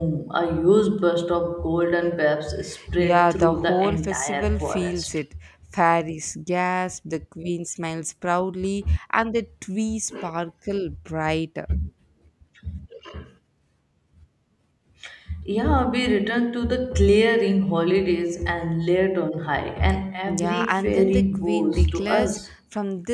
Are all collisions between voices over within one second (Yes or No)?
No